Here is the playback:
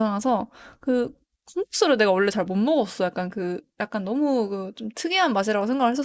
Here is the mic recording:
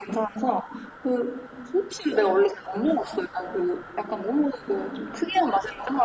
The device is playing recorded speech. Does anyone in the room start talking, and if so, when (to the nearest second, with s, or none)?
none